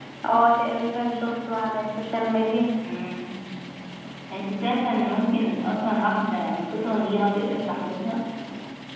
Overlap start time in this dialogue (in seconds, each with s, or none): none